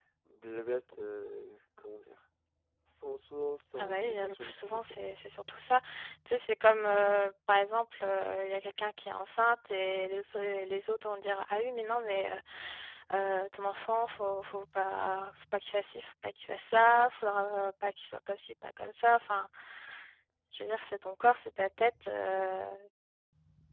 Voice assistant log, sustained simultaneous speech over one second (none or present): present